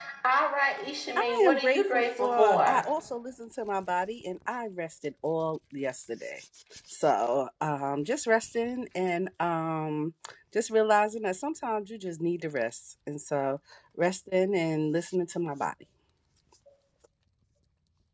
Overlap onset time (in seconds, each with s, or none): 1.2 s